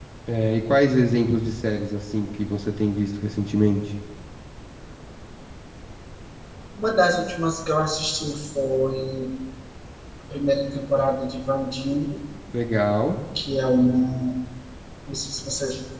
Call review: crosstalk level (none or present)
none